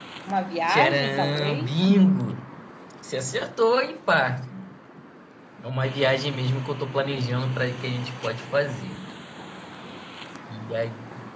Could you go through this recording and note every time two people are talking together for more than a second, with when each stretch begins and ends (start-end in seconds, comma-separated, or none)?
0.7-1.9